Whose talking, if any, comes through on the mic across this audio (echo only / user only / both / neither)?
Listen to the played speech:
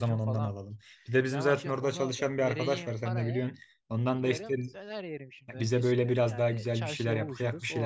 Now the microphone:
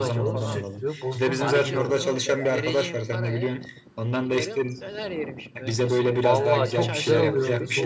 both